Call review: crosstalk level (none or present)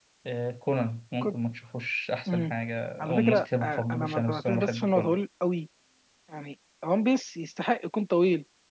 present